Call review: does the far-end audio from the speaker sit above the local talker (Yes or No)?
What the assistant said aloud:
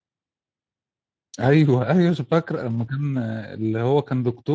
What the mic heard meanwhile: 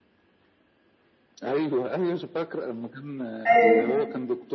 No